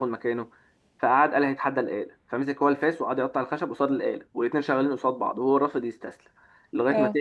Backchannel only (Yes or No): Yes